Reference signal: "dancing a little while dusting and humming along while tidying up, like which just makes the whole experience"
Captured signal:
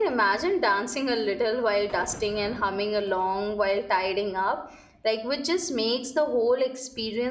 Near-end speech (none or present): none